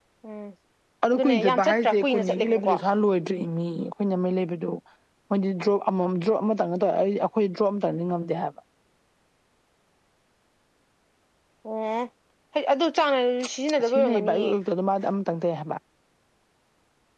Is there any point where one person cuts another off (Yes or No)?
Yes